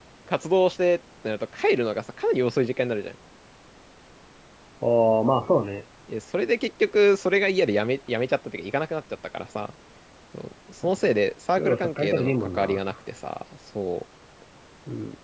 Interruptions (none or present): present